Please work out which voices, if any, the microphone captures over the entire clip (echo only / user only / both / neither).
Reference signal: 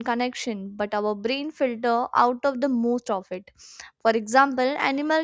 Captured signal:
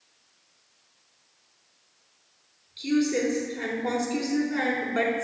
user only